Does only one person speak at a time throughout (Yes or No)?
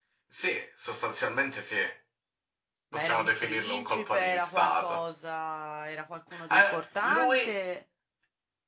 No